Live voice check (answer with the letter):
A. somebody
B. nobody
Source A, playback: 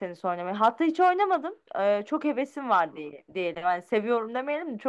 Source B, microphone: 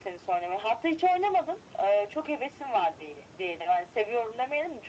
B